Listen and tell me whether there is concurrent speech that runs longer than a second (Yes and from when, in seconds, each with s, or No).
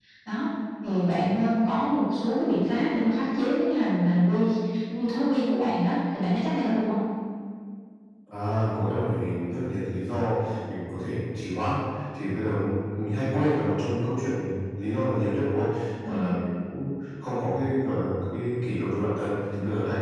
No